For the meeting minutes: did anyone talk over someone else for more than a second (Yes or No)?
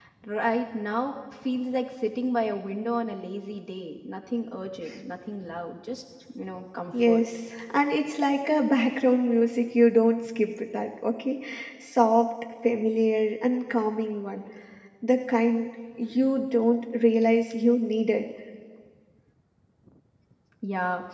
No